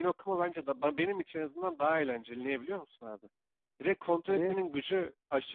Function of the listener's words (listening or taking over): listening